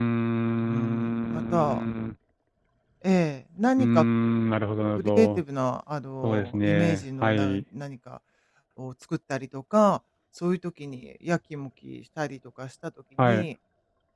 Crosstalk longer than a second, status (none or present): present